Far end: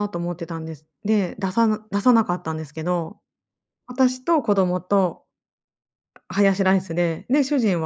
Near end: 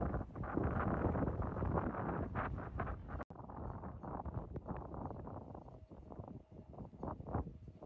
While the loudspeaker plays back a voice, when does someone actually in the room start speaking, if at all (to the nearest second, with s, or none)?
none